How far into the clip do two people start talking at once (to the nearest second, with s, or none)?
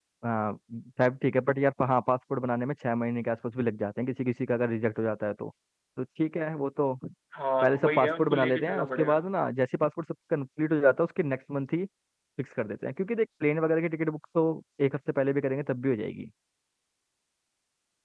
8 s